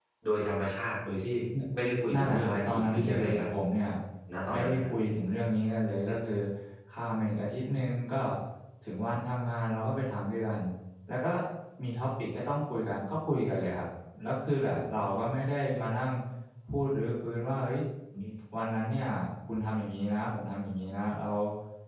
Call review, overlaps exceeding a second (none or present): present